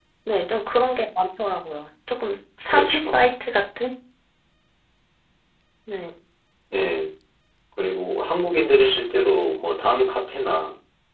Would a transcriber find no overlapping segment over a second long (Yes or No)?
Yes